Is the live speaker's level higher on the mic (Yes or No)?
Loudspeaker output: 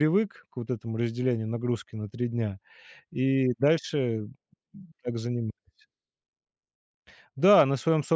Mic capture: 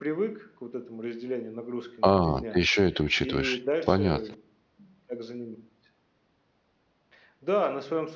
Yes